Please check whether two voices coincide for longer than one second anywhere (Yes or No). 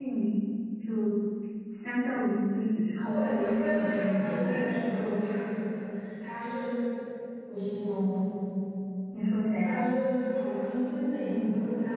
Yes